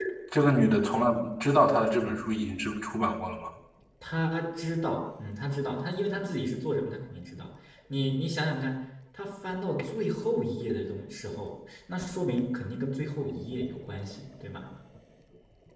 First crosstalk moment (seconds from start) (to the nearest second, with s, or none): none